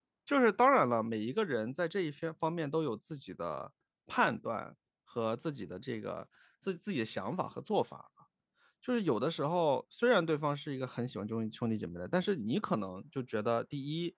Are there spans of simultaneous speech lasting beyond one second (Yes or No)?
No